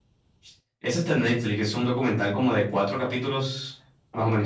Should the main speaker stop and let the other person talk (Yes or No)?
Yes